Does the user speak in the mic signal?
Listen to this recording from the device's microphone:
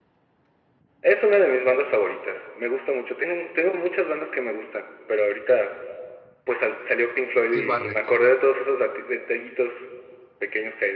Yes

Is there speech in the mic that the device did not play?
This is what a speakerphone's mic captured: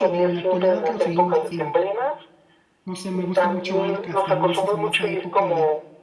Yes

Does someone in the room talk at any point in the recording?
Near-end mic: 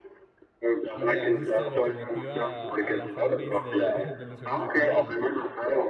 Yes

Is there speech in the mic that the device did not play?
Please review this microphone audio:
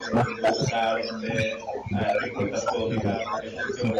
Yes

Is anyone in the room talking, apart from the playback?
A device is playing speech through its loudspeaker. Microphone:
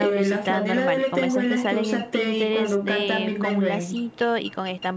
Yes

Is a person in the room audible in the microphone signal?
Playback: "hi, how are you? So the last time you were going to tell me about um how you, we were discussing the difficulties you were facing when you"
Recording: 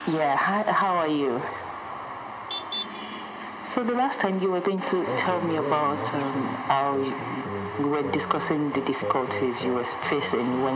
Yes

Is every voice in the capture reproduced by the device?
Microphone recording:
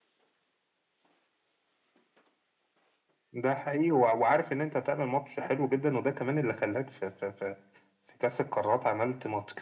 Yes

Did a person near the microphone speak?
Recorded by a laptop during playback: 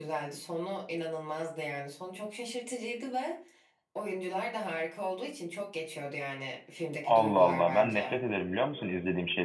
Yes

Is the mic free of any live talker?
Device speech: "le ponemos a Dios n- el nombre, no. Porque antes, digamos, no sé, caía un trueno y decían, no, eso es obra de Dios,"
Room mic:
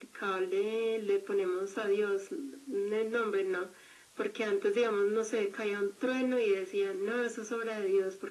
Yes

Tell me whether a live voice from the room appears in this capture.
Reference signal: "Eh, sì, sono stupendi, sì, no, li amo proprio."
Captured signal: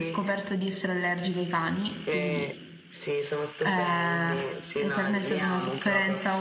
Yes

